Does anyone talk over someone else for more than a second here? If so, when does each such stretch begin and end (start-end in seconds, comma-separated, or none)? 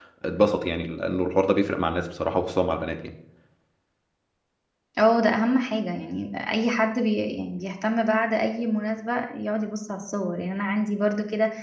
none